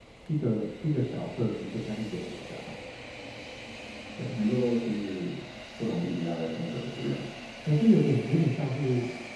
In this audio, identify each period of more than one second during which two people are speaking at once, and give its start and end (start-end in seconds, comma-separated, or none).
none